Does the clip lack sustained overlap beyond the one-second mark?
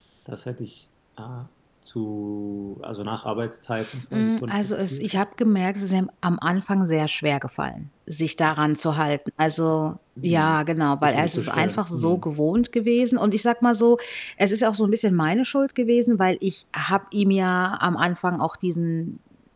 No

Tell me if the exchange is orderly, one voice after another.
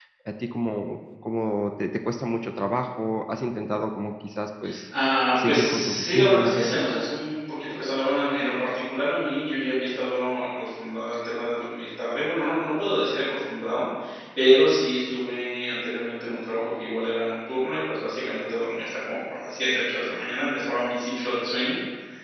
No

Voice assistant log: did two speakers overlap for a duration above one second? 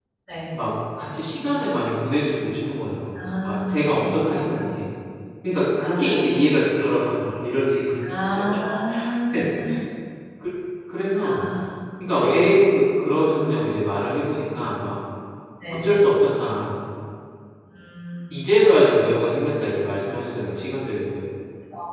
Yes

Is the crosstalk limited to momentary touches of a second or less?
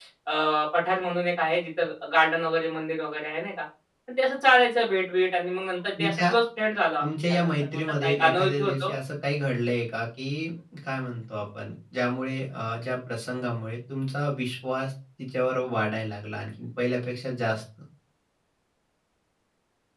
No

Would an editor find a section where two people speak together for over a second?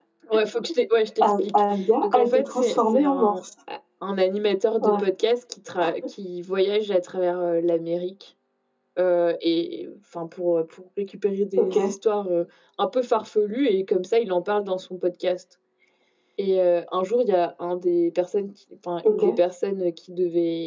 Yes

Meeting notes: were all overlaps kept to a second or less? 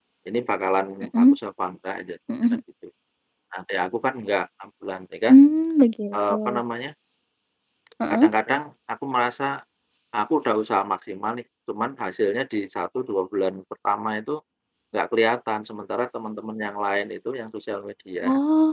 Yes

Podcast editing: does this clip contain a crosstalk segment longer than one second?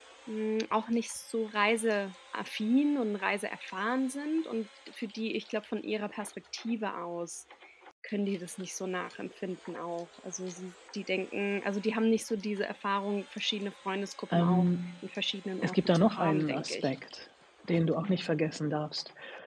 Yes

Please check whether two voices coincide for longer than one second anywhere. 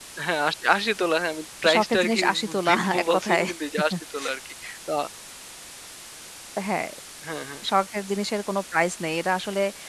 Yes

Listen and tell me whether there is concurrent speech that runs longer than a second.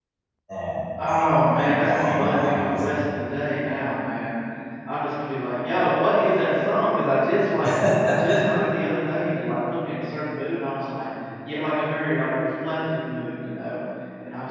Yes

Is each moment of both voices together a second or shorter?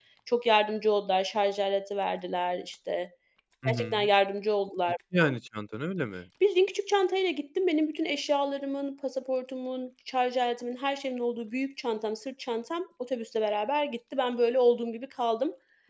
Yes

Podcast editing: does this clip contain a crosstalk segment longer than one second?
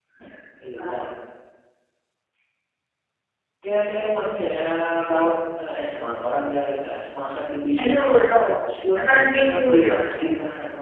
Yes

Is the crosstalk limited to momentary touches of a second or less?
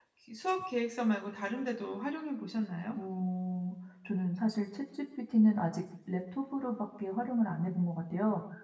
Yes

